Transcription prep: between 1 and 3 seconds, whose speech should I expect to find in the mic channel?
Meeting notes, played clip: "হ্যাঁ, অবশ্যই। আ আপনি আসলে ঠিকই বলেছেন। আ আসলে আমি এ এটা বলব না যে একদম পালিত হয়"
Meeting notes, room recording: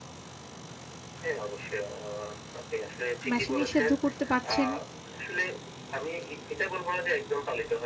echo only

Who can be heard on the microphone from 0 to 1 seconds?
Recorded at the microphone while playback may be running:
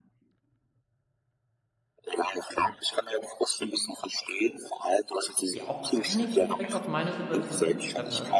neither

